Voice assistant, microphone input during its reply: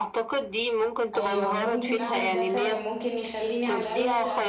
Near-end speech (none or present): present